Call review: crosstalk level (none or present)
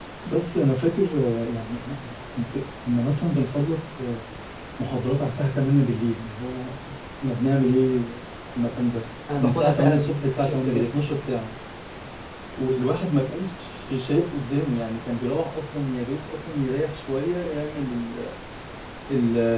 present